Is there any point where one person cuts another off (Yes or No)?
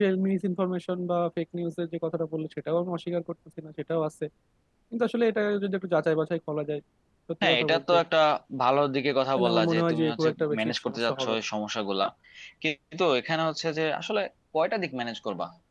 Yes